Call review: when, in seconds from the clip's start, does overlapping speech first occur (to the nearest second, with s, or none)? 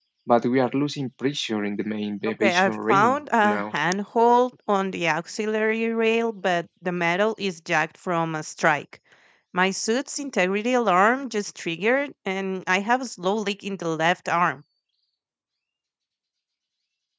2 s